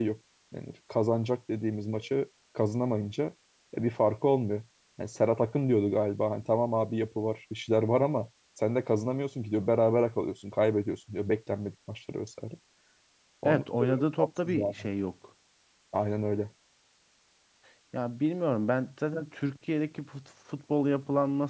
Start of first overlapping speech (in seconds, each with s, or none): 13.4 s